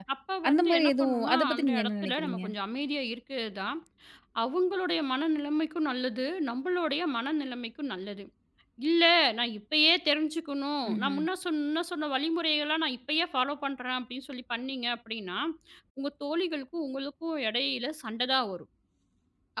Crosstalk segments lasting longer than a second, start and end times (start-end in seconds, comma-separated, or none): 0.5-2.4